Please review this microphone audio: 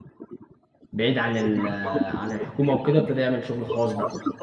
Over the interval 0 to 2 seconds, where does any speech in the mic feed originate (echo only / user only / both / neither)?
both